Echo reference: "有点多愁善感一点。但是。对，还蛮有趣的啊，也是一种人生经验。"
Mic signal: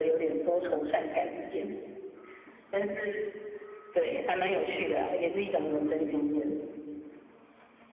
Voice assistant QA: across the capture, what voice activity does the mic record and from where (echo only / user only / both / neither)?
echo only